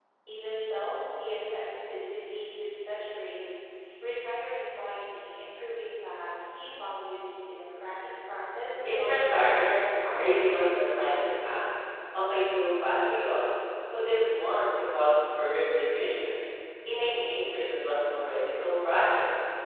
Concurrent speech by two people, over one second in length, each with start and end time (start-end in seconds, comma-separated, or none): 8.9-10.4